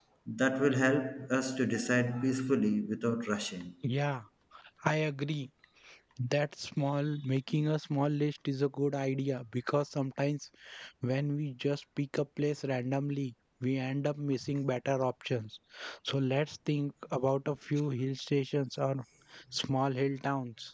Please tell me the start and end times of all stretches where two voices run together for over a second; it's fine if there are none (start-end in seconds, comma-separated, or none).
none